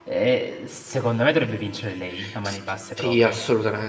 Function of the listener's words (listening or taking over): taking over